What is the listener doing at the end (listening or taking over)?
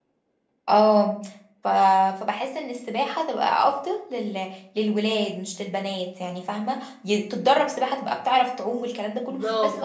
taking over